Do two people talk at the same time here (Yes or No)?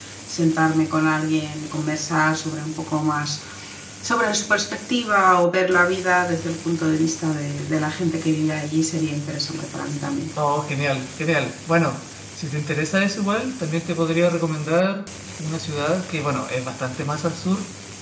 No